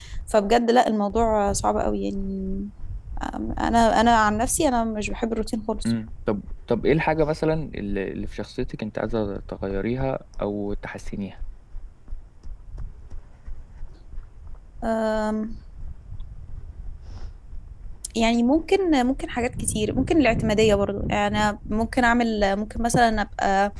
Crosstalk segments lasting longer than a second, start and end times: none

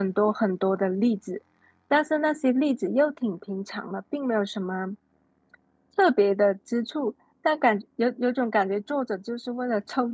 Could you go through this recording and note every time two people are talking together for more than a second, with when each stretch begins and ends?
none

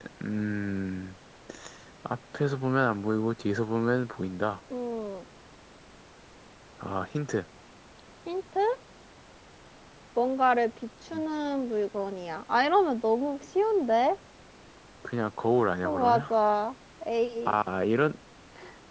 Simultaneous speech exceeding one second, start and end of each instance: none

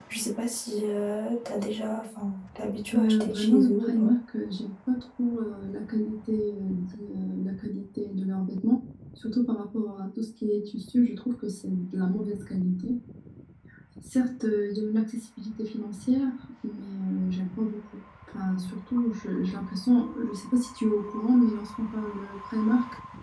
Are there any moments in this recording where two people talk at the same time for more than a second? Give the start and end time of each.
2.9-4.1

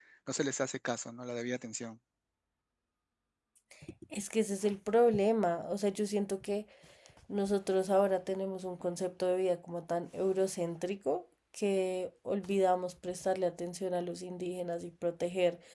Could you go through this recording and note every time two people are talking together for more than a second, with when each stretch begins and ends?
none

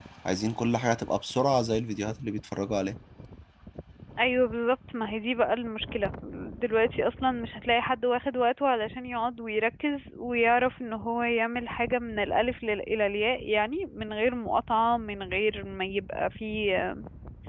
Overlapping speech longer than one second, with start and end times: none

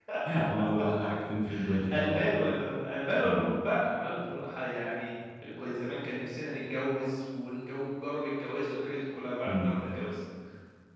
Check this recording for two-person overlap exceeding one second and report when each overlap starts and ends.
none

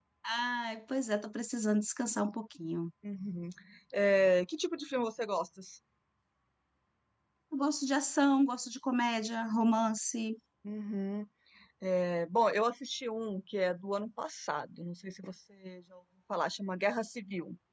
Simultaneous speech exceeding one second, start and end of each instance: none

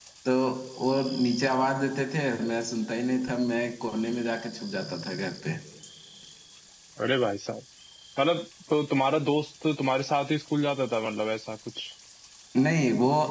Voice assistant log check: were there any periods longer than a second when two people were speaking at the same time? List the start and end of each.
none

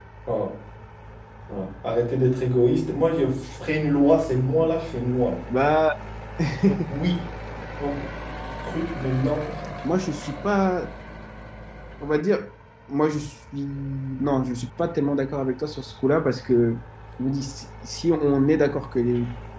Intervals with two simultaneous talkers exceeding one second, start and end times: none

